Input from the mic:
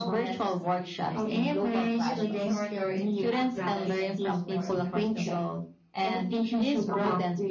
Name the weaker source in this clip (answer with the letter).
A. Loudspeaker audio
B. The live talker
B